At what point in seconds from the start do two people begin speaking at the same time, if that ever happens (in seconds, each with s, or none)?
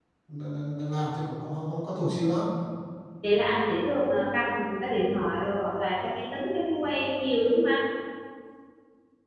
none